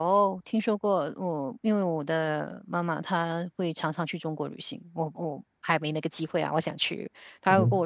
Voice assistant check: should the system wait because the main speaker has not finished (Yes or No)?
Yes